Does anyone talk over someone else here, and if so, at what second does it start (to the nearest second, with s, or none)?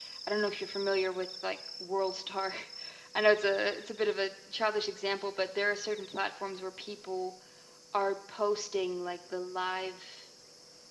none